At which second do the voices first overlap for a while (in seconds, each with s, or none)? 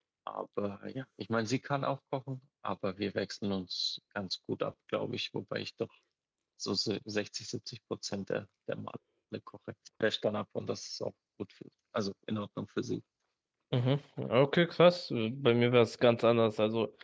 none